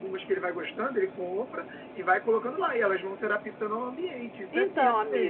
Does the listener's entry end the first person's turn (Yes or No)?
Yes